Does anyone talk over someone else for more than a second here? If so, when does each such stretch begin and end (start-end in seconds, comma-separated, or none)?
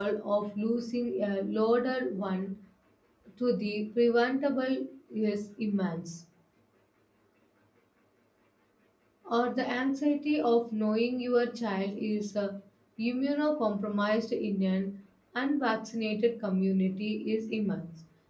none